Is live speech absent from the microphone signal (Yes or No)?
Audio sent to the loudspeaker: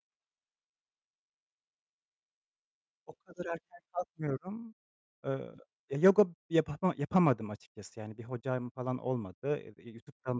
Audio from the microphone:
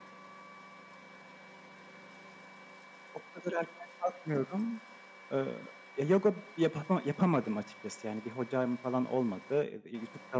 Yes